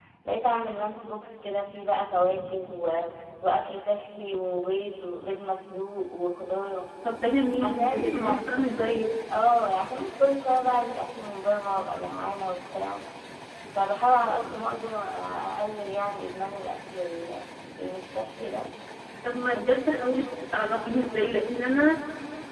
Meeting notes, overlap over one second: present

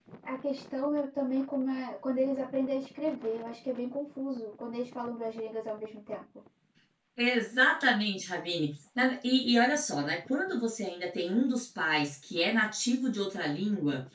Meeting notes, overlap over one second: none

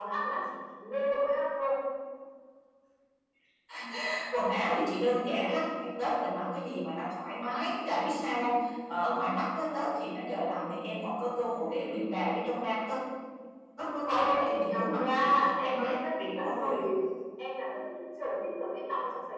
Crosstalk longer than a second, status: present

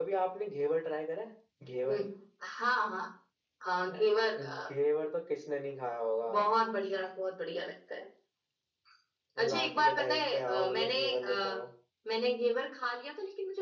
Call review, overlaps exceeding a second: present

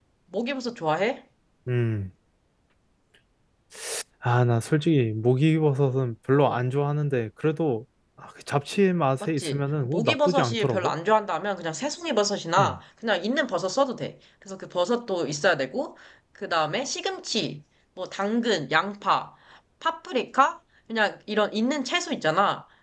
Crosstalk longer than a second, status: present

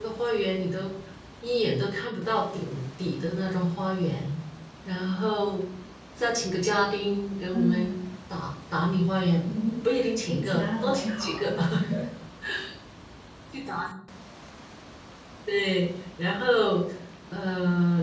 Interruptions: present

